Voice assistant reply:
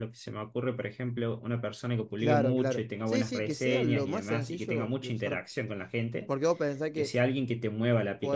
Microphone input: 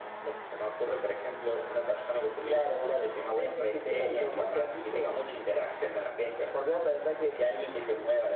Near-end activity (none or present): none